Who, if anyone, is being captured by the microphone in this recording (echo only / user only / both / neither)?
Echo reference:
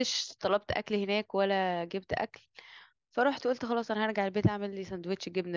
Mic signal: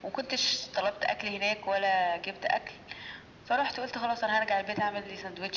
echo only